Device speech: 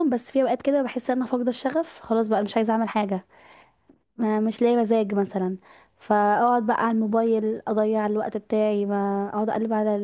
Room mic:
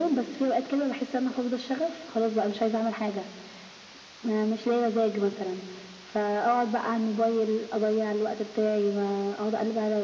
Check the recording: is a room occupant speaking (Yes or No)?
No